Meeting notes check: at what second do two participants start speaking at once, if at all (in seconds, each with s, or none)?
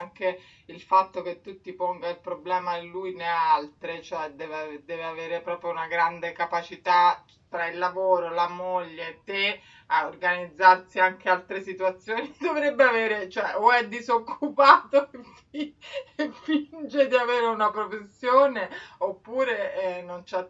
none